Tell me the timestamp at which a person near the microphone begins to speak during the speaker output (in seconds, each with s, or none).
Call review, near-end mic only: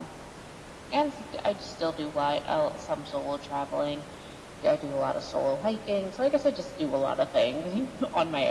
none